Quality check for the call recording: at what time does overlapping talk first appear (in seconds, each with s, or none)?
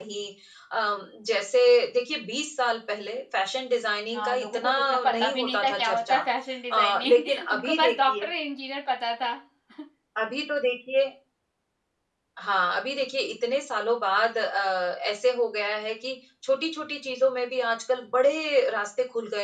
4.1 s